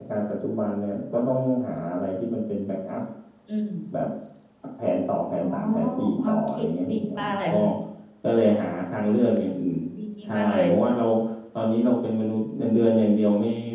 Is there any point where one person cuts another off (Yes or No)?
Yes